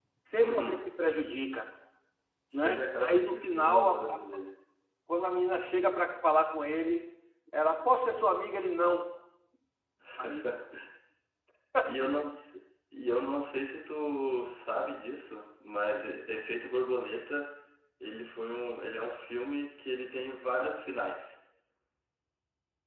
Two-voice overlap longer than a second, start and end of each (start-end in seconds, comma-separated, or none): 2.5-4.2